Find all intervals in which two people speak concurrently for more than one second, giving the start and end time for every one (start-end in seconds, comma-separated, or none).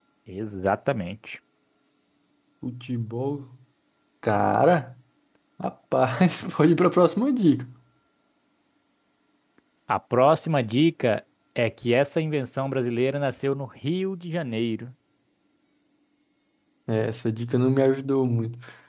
none